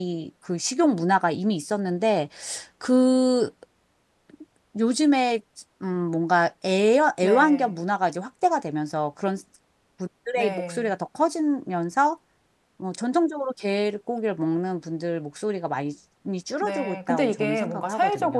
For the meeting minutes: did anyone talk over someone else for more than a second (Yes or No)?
Yes